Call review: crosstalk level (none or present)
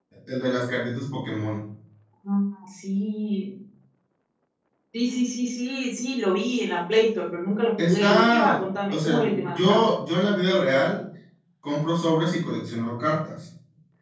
present